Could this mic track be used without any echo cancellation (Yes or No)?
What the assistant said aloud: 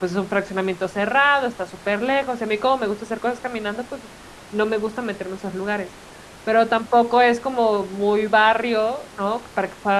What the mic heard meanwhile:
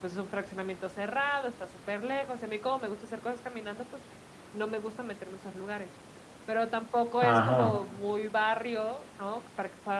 No